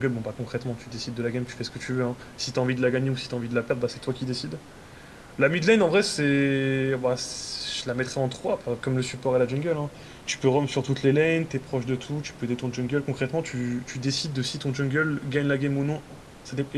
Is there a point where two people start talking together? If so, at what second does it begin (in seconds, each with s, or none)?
none